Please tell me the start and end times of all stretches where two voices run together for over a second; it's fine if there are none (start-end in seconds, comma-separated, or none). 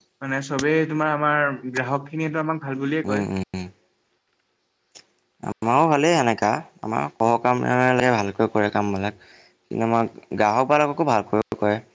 none